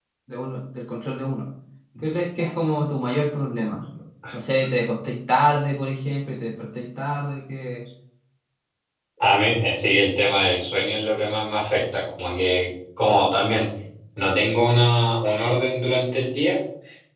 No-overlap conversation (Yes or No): Yes